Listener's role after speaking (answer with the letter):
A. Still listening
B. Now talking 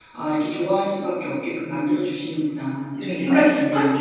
B